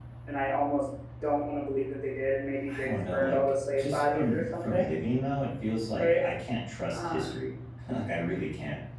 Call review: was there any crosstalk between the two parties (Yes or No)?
Yes